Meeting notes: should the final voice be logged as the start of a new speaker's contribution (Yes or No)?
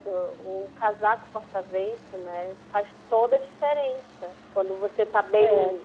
No